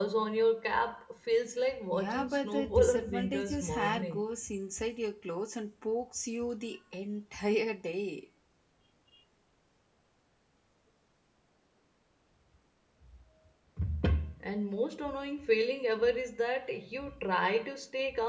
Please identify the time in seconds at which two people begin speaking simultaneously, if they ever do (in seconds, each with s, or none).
1.9 s